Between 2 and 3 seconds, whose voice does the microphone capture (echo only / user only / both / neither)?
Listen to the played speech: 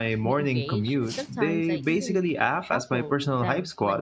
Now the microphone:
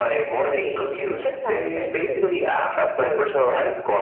echo only